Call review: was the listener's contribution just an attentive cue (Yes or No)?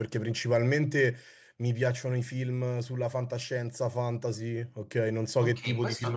No